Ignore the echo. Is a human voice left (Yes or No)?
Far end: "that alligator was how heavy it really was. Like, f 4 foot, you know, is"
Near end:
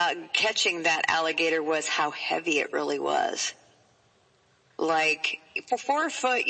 No